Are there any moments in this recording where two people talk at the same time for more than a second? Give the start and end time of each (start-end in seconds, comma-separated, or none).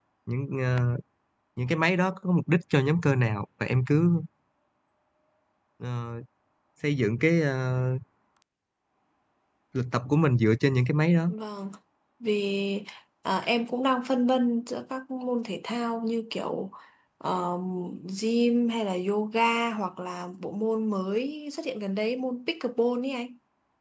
none